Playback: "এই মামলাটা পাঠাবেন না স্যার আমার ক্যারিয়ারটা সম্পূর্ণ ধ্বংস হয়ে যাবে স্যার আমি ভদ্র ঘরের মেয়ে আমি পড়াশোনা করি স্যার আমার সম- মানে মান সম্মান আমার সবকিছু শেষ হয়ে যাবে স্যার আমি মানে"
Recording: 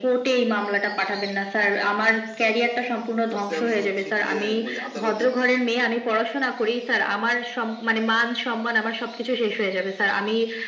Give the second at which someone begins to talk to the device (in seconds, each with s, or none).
3.3 s